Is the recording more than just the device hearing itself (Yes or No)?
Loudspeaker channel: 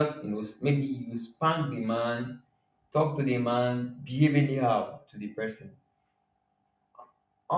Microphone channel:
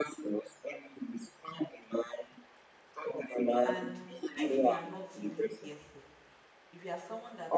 Yes